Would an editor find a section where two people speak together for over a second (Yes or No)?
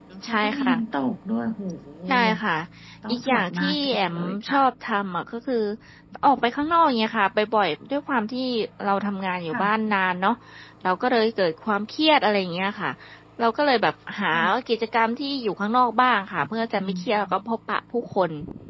Yes